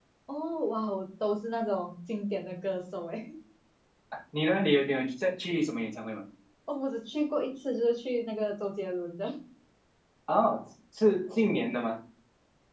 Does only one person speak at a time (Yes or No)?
Yes